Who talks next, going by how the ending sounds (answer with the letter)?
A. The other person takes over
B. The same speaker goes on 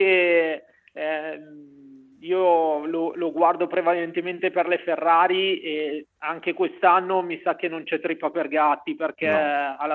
B